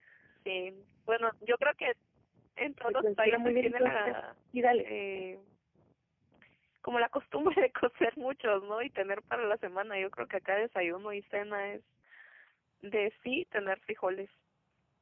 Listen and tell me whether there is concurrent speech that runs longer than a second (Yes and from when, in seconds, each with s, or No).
Yes, from 3.0 s